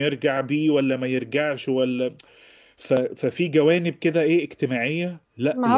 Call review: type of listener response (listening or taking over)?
taking over